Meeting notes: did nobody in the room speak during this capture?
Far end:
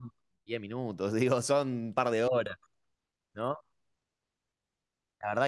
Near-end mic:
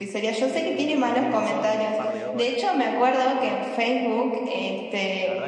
No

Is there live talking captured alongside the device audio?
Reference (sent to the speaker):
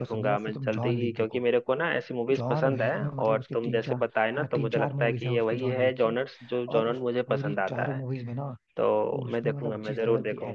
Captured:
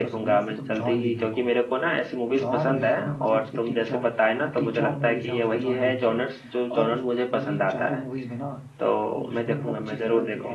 No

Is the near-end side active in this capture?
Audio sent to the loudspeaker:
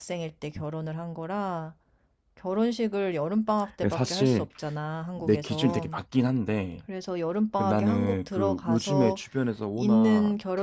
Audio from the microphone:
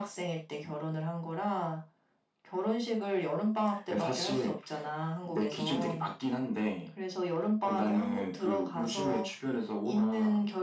No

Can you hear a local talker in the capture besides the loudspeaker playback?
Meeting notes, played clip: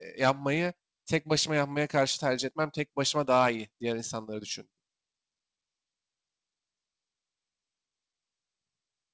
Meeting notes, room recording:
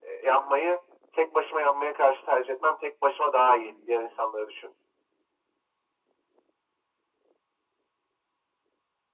Yes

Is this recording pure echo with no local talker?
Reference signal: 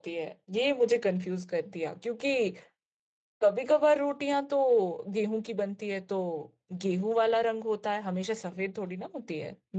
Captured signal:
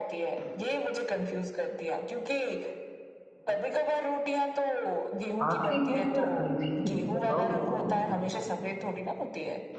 No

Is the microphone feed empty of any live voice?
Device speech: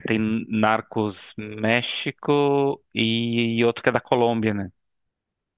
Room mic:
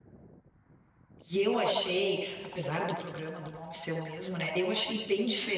No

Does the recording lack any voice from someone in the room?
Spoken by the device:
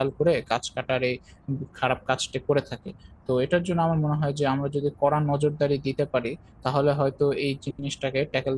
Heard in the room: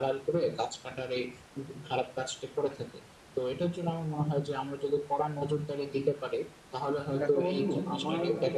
No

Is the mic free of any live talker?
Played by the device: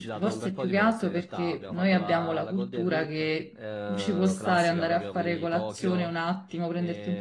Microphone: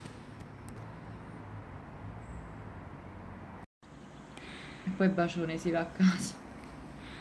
No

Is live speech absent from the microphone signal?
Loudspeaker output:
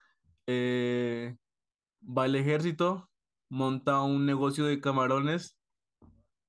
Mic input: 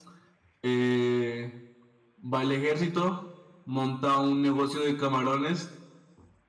Yes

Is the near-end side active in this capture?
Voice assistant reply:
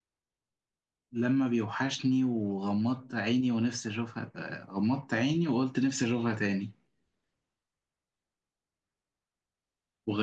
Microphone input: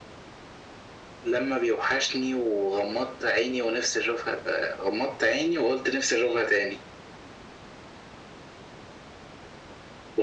No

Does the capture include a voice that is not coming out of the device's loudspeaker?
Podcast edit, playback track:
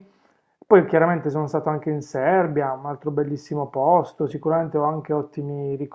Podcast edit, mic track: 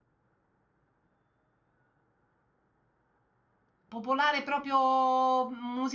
Yes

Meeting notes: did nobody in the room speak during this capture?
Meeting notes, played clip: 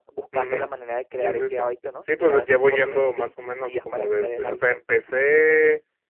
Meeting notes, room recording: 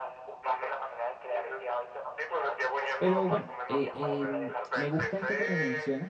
No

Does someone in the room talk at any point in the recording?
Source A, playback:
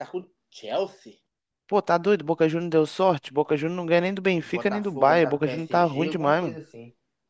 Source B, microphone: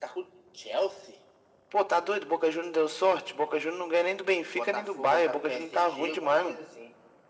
No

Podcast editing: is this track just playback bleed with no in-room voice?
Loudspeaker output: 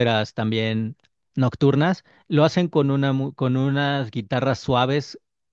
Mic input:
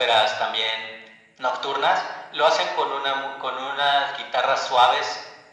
Yes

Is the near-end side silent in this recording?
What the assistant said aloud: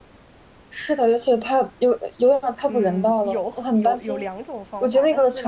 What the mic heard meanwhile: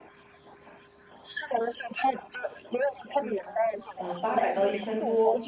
No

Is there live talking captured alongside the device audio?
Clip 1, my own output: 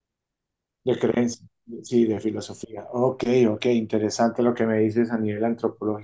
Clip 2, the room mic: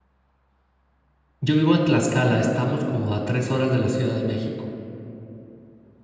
Yes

